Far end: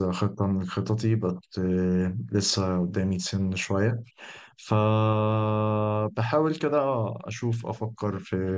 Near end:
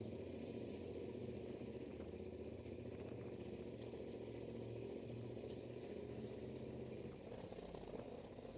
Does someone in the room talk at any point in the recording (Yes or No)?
No